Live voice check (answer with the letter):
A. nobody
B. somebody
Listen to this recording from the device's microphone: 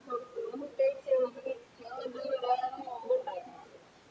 A